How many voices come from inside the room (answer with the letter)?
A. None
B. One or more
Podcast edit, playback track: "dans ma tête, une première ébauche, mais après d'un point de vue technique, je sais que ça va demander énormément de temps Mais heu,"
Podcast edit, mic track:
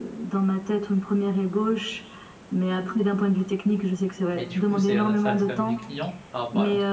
B